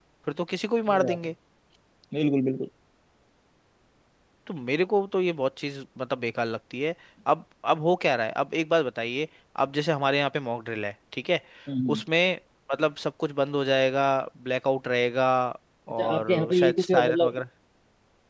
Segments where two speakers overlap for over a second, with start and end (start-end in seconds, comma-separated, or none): 15.9-17.4